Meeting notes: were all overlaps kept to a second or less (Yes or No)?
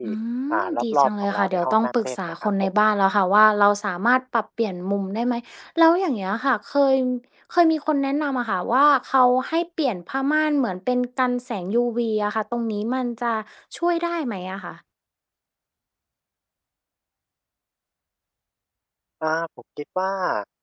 No